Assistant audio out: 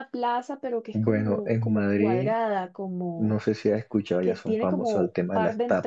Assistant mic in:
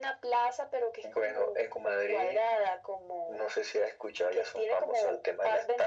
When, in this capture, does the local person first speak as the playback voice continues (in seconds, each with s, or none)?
none